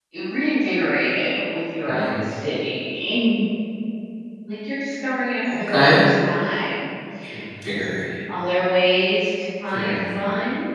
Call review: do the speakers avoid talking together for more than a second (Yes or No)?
Yes